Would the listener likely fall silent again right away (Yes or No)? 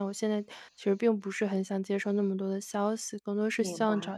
Yes